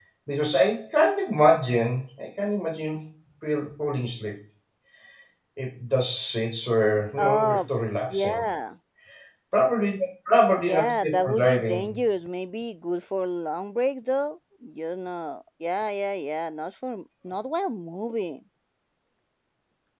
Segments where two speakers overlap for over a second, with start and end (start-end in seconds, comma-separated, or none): 10.6-11.9